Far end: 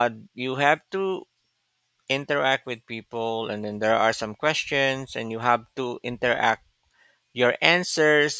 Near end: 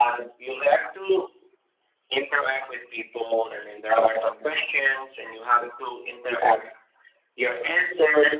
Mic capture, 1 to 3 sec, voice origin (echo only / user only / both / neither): echo only